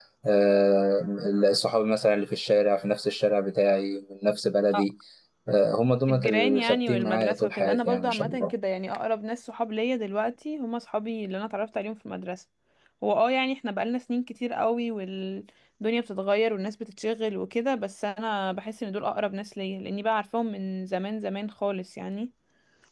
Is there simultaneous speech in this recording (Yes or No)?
Yes